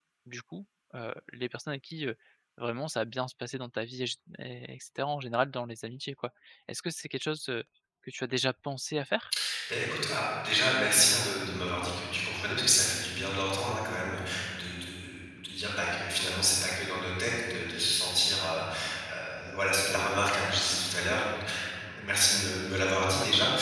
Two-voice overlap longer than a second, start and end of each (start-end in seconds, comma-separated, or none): none